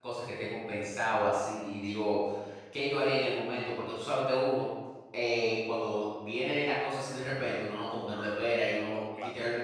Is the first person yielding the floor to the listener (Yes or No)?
No